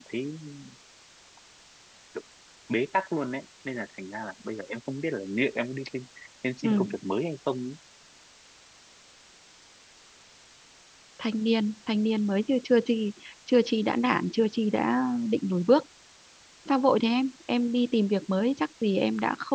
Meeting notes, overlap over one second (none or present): none